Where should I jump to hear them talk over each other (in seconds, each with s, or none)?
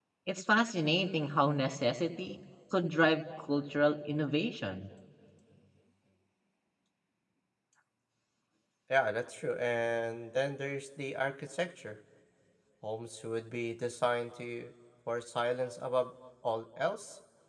none